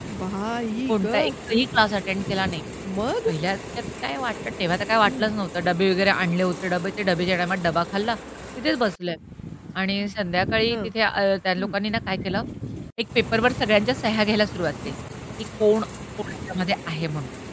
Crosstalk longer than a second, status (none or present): none